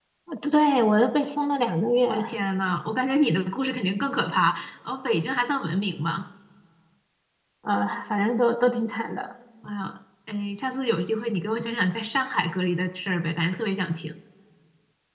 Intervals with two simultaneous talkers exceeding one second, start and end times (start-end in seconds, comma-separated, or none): none